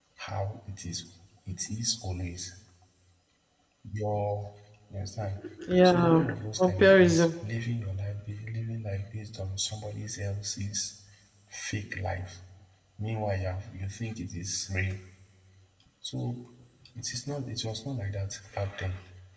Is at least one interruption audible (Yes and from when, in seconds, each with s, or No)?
Yes, from 5.8 s